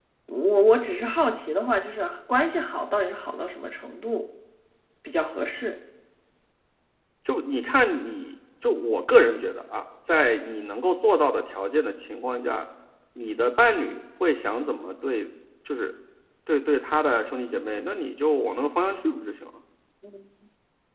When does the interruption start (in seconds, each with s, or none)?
none